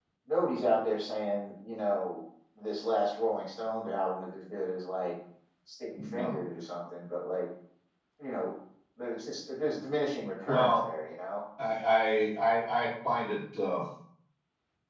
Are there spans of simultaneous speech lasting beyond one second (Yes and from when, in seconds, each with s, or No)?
No